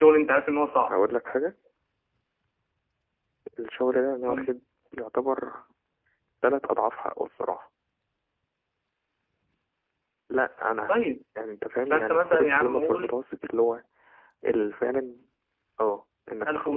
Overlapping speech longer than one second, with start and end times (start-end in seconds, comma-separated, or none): 11.9-13.1